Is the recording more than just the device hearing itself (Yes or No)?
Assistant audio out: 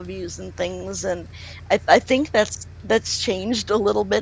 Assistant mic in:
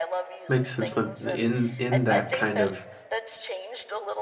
Yes